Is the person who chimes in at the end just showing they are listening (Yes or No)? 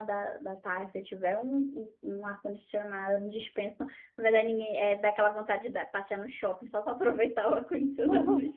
No